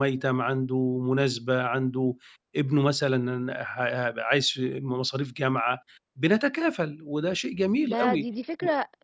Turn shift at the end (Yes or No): Yes